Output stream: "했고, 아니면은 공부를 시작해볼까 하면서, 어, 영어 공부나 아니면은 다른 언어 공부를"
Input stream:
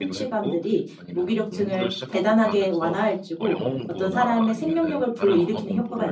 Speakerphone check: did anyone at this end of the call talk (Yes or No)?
Yes